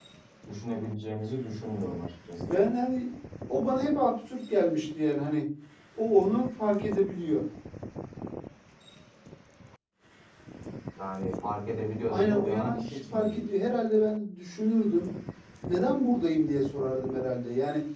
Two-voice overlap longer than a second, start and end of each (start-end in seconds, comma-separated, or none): 12.1-13.4